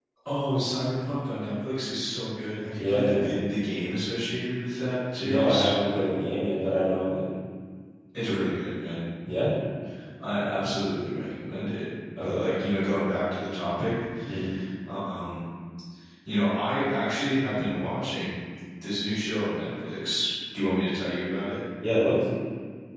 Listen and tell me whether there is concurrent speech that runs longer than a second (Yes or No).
No